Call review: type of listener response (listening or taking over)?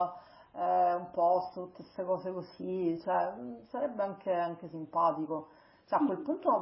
listening